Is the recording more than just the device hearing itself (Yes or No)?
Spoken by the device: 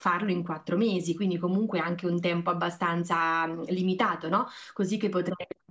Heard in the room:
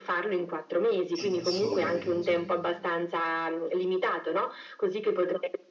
Yes